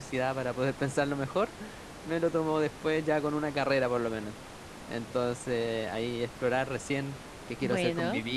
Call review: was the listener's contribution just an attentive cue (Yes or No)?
Yes